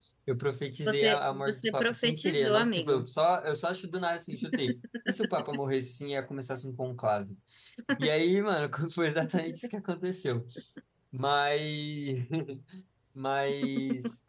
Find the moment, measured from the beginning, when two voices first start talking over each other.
0.9 s

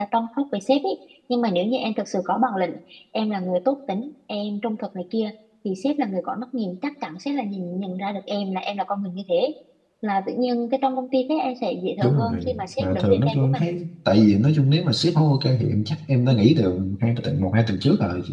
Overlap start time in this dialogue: 12.0 s

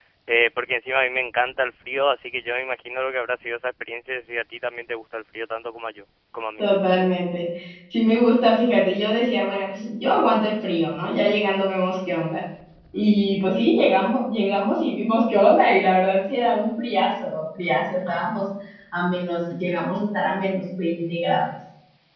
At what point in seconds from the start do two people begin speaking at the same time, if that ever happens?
none

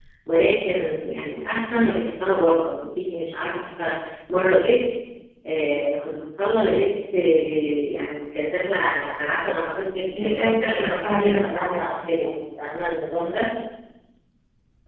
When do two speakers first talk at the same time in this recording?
10.1 s

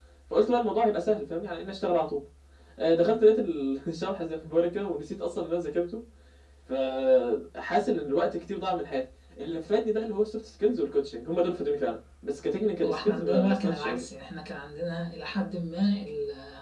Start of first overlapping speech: 12.8 s

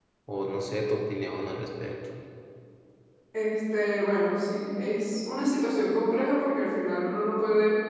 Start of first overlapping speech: none

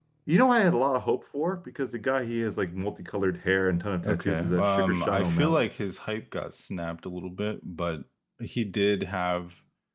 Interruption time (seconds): 4.0 s

